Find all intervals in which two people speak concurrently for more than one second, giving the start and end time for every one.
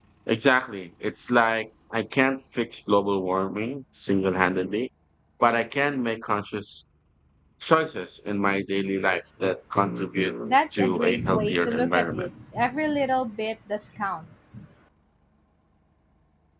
10.4-12.3

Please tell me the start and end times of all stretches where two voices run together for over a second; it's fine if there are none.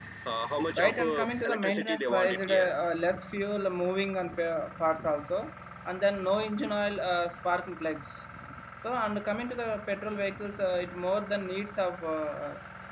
0.7-2.7

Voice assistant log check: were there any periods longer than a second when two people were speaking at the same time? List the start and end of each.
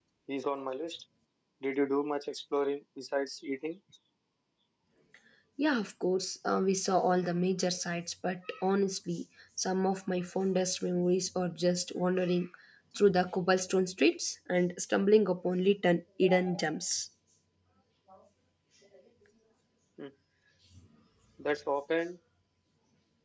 none

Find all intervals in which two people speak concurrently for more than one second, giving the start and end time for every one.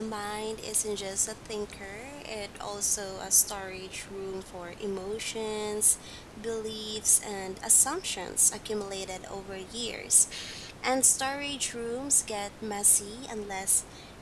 none

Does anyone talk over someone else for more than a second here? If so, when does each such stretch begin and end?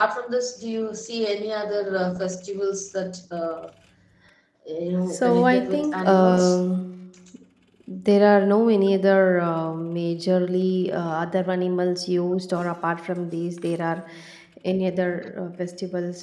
5.2-6.6

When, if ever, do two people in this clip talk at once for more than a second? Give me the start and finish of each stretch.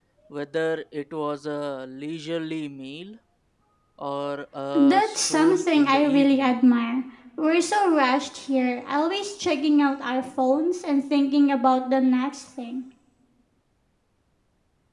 4.9-6.5

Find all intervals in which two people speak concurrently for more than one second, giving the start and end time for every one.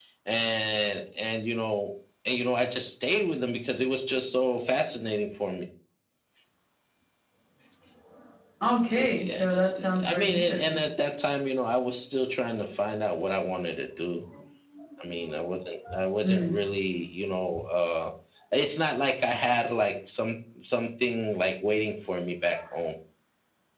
8.7-10.8

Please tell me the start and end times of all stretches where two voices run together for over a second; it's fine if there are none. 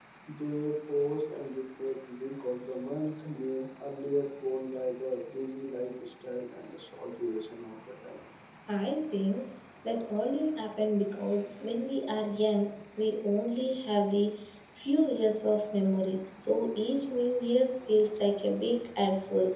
none

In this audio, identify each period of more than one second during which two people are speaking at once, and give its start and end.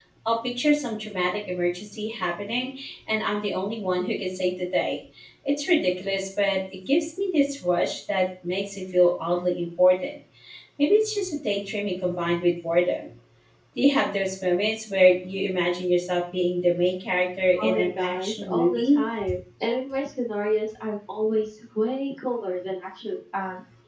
17.6-19.0

